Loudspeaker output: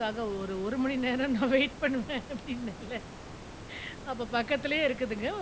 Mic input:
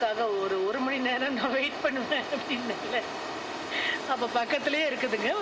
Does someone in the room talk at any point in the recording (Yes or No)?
No